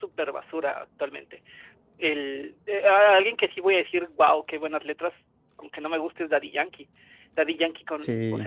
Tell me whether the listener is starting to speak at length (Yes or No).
No